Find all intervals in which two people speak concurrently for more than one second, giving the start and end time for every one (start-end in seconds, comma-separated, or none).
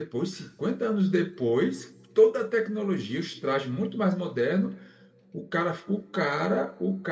none